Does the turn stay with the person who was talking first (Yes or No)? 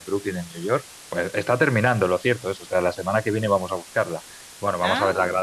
Yes